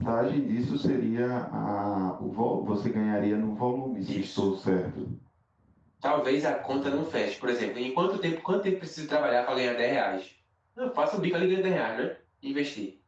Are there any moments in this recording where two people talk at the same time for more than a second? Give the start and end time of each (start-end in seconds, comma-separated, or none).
none